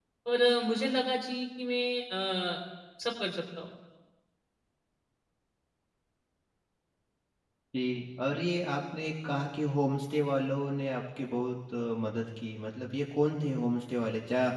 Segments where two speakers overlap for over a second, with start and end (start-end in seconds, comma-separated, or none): none